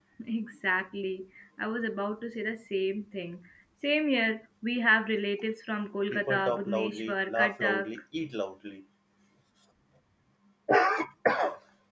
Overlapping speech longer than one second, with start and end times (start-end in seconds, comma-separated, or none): 6.1-7.9